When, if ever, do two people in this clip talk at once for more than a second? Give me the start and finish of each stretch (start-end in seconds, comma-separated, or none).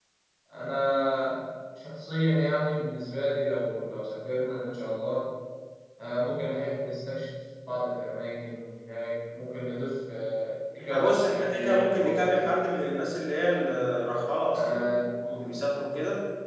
10.8-13.5